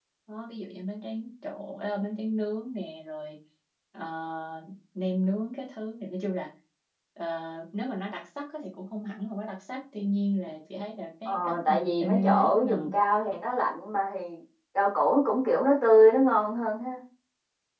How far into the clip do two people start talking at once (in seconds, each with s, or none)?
11.2 s